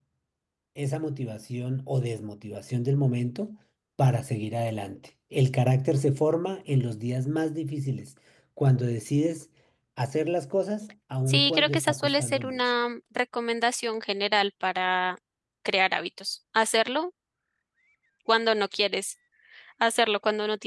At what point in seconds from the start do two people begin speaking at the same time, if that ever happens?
11.3 s

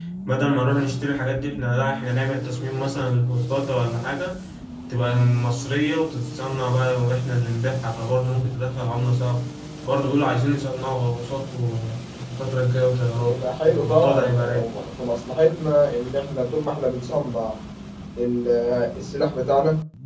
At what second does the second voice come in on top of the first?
13.2 s

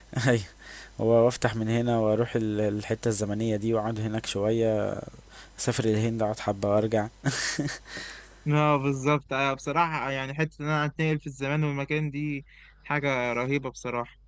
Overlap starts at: none

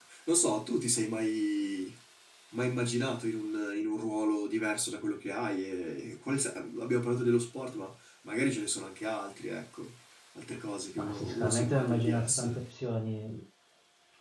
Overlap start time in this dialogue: 10.9 s

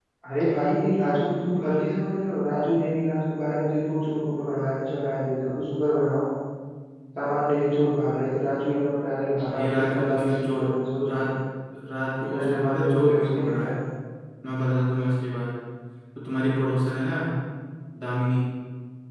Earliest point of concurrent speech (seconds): 9.4 s

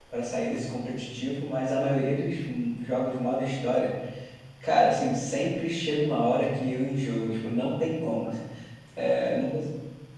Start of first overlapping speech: none

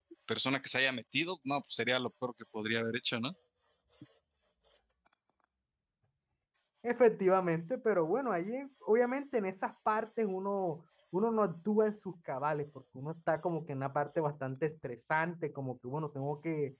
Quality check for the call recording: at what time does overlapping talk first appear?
none

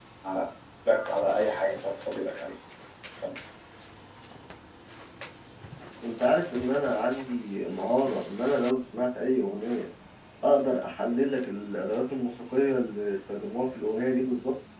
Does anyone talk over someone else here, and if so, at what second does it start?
none

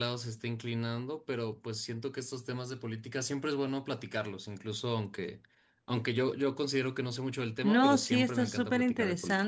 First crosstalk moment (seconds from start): 7.6 s

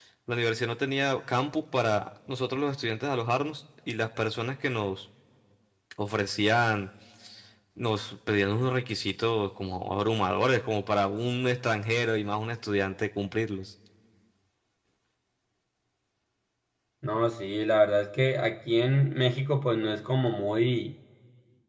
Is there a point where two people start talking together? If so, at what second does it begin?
none

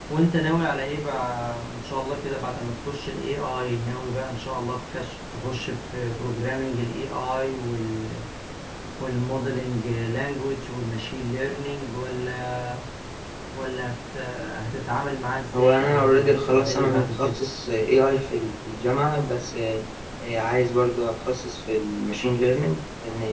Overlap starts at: 15.5 s

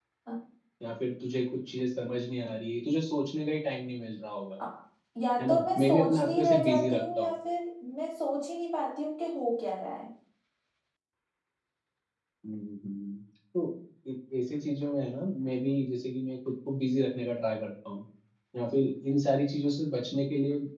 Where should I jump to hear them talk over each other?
5.4 s

